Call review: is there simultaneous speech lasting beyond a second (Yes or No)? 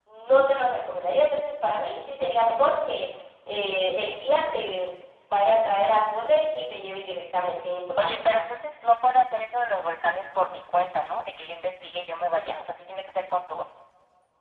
No